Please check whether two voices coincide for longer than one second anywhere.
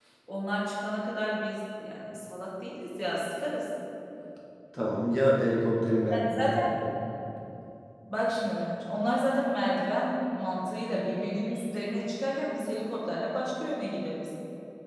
No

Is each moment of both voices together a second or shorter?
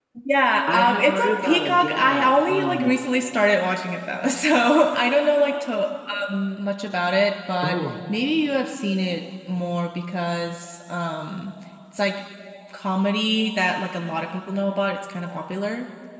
No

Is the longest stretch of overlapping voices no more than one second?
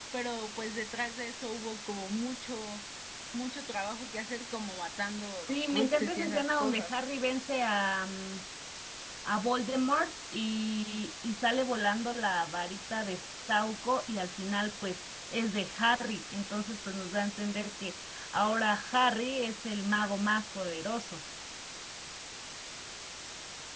No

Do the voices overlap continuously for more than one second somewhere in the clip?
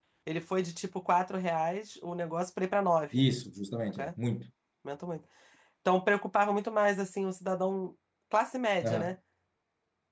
No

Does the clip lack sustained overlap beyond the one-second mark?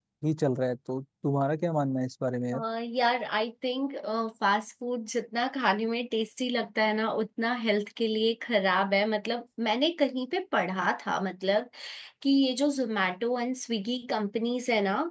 Yes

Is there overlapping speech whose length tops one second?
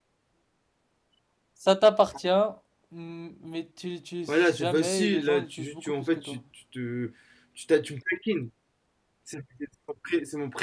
Yes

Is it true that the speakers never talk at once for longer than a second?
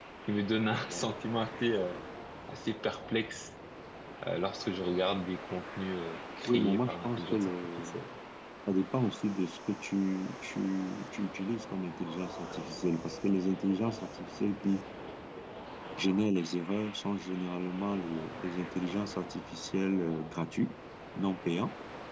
No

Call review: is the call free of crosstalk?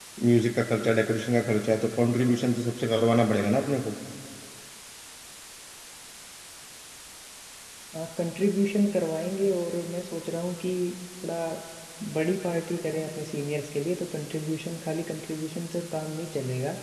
Yes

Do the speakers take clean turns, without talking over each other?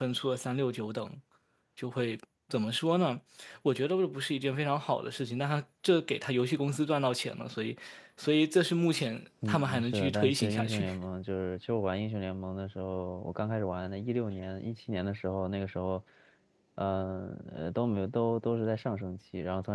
No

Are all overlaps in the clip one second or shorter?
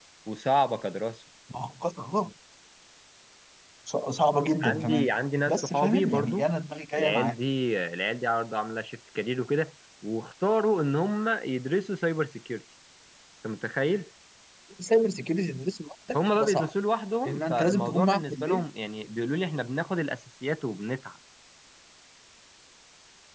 No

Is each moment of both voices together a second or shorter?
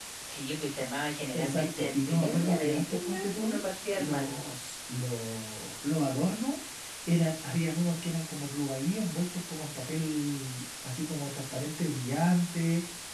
No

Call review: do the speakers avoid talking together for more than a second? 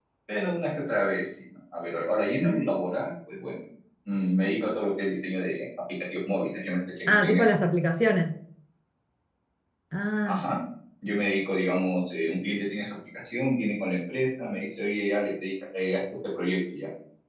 Yes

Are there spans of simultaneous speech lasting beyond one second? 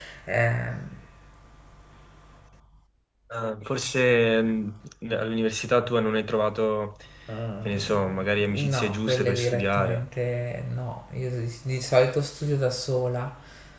Yes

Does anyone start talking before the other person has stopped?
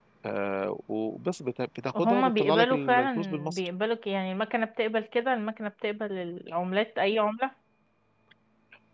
Yes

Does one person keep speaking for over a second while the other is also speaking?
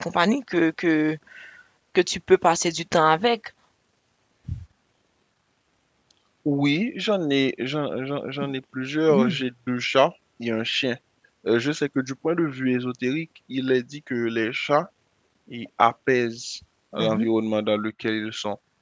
No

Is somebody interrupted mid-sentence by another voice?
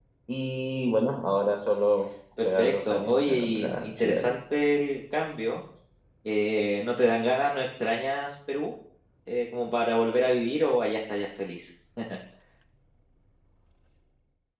Yes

